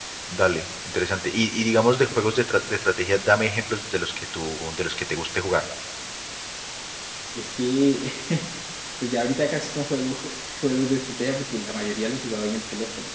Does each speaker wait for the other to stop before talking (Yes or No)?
Yes